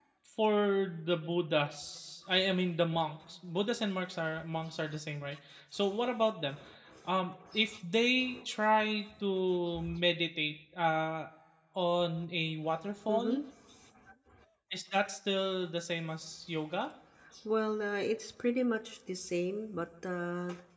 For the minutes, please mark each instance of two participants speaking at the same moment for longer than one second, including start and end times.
none

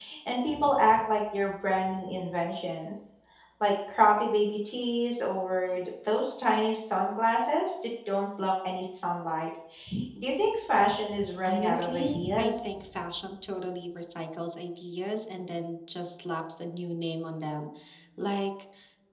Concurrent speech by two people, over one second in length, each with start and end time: 11.5-12.7

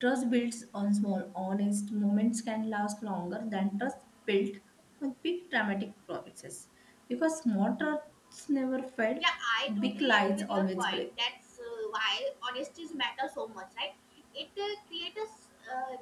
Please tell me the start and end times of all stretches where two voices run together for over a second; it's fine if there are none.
9.8-11.1

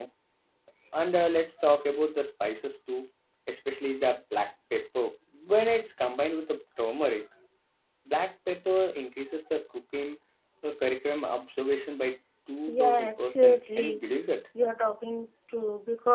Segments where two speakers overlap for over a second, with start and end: 12.7-14.0

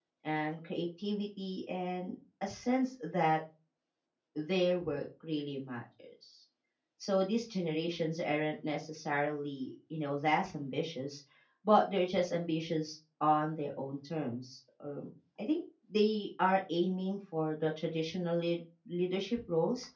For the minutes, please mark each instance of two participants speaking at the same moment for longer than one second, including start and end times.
none

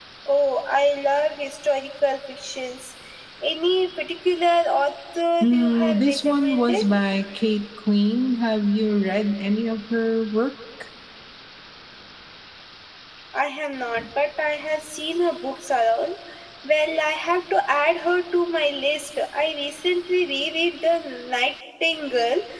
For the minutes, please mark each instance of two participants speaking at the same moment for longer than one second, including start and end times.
5.4-6.8

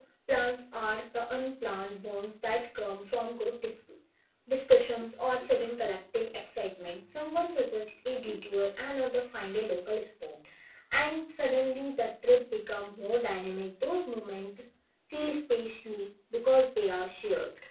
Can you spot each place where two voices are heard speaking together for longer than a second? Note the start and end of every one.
none

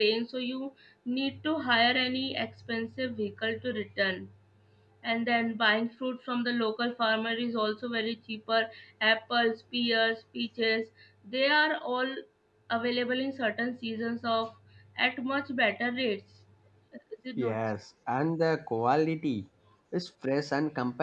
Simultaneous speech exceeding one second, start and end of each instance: none

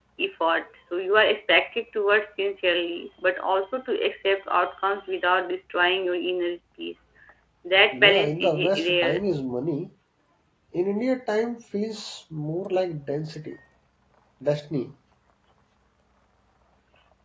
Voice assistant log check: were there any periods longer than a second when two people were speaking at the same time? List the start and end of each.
7.9-9.2

